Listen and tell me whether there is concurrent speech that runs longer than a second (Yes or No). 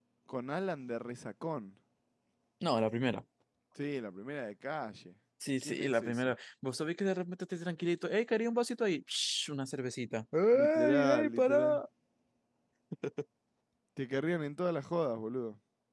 Yes